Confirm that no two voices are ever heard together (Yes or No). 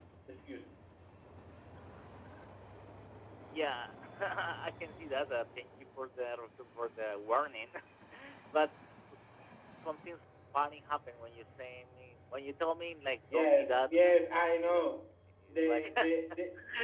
No